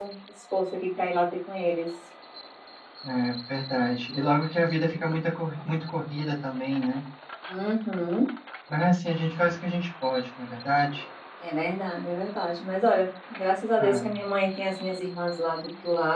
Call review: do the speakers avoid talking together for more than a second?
Yes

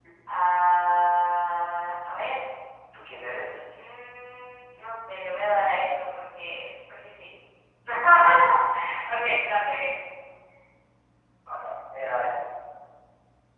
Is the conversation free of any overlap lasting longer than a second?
Yes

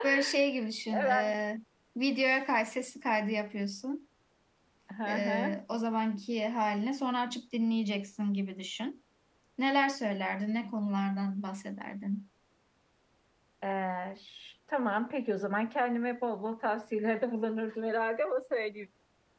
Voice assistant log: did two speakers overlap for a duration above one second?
No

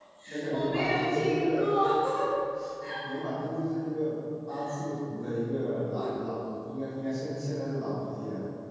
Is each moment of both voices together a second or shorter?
No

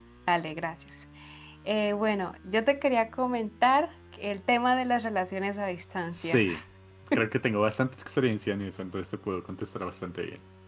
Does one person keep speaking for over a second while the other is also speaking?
No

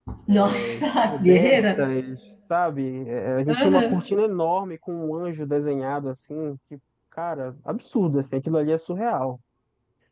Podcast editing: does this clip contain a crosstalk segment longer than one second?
Yes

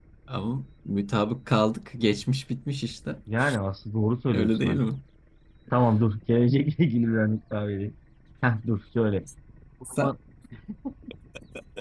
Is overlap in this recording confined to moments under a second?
Yes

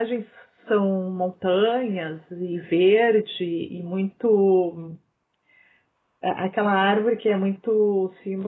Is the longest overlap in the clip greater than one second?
No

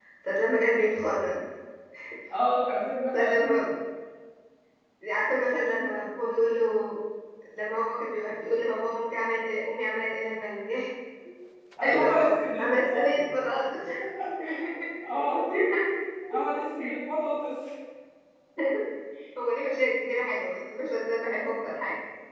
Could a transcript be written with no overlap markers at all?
No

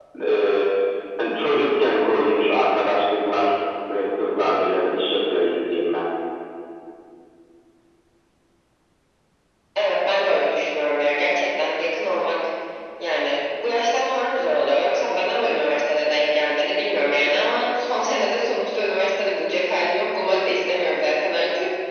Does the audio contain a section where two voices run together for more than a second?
No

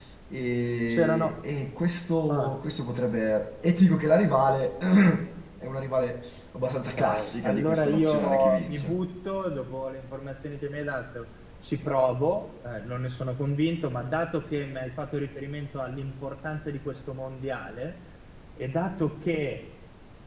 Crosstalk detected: Yes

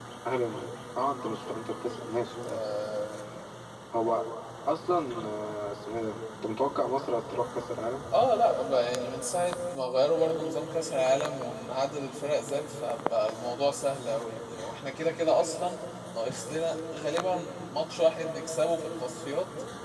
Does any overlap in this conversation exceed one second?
No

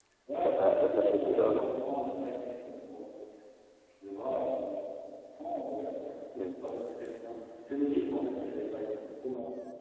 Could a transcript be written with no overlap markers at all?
No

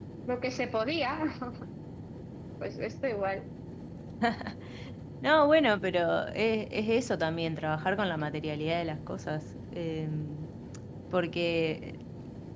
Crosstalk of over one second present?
No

